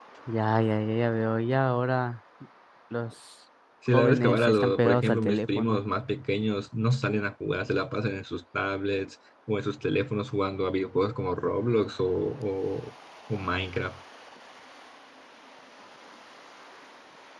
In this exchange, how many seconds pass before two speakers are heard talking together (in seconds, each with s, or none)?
3.9 s